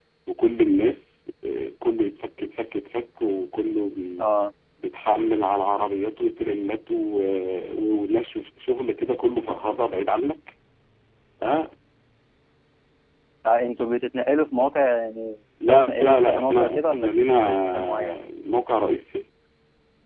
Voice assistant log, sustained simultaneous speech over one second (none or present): present